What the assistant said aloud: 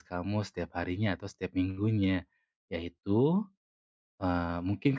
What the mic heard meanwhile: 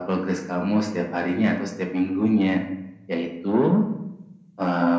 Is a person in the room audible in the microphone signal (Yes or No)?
No